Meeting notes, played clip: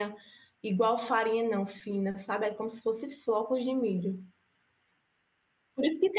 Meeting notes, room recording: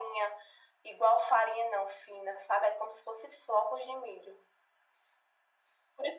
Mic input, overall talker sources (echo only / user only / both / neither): echo only